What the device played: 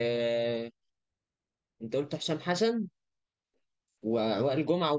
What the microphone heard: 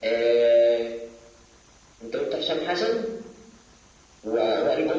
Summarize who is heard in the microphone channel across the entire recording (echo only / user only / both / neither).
echo only